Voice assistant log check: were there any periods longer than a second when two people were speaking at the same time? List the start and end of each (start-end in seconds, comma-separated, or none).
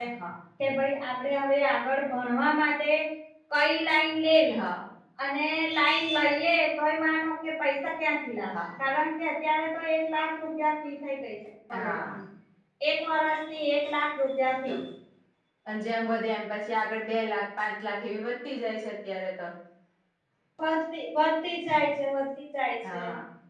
none